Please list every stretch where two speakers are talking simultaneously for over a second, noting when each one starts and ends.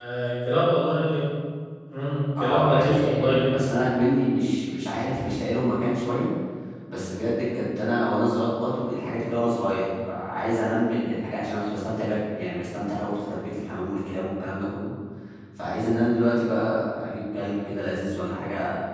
2.4-3.6

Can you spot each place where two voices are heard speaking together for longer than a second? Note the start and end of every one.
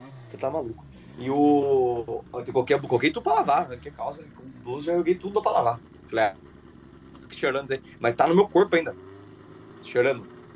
none

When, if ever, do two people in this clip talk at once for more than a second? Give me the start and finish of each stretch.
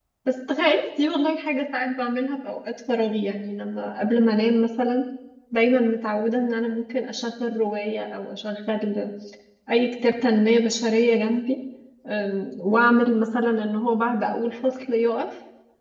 none

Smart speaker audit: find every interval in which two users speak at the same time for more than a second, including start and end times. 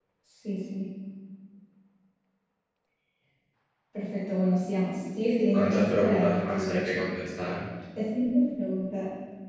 5.5-7.0

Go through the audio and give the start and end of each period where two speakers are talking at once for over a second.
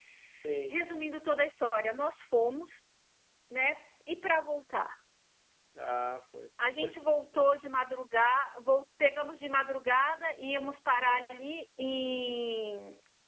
none

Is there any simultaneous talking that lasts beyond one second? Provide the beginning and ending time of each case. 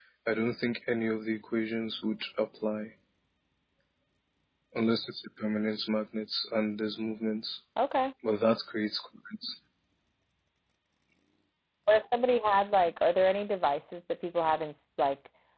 none

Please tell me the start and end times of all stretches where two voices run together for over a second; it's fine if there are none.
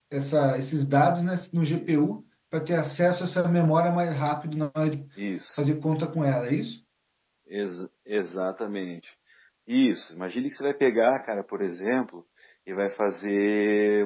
none

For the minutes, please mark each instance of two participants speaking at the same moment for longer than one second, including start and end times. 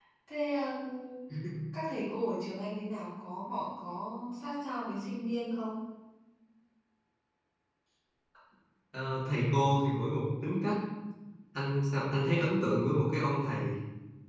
none

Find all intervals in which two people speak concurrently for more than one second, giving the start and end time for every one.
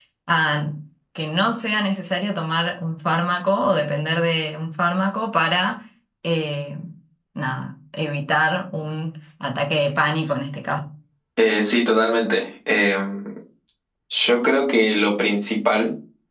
none

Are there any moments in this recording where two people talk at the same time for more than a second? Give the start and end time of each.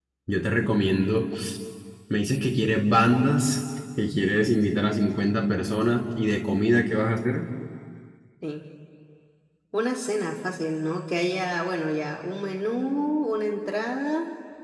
none

